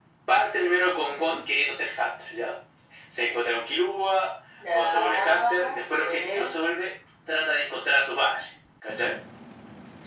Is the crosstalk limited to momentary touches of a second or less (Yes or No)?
No